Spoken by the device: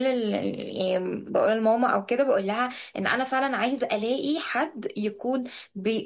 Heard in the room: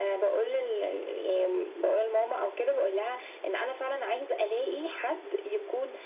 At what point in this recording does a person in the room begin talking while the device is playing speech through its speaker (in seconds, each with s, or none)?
none